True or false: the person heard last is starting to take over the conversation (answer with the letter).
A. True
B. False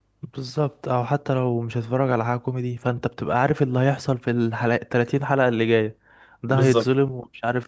B